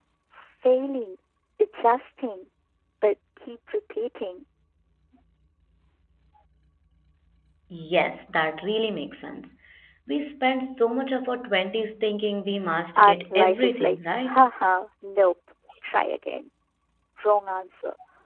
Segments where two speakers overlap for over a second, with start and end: 13.0-14.4

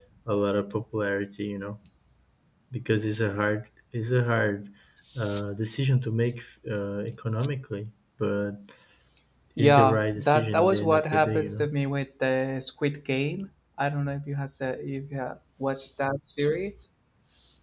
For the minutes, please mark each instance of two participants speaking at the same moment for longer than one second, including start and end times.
9.6-11.7

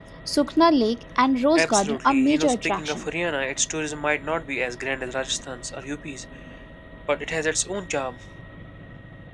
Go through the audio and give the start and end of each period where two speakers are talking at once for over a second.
1.6-3.1

